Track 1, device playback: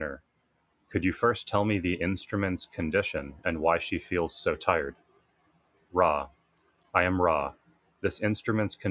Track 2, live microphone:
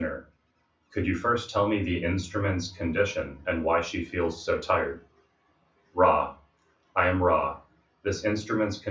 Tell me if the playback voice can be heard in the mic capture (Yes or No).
Yes